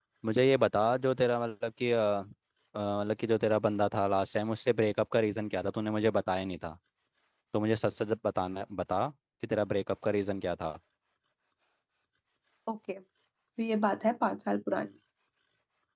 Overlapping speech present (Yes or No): No